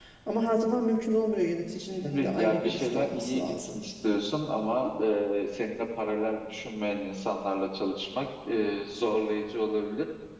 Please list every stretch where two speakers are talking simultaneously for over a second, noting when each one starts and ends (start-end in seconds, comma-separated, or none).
2.0-3.8